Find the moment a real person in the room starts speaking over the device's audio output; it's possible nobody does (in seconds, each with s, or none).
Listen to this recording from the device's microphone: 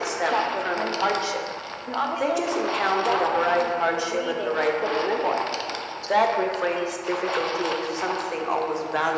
none